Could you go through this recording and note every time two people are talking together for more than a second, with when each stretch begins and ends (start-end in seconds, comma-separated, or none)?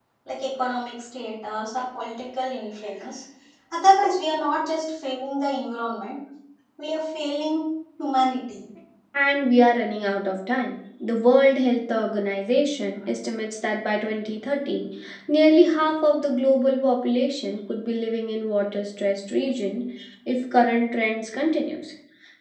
none